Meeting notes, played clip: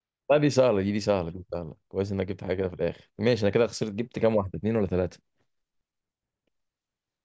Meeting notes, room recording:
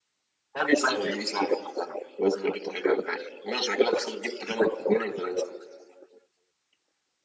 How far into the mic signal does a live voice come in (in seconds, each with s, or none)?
none